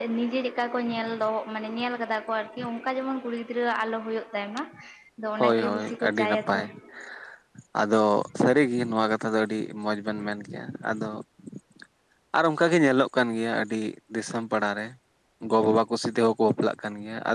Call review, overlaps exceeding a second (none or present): present